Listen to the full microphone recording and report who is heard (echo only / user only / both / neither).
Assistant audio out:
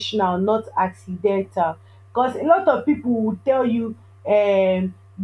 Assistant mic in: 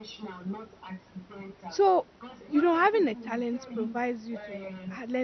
both